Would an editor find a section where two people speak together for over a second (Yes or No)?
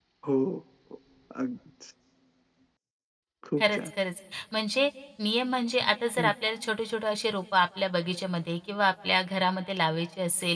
No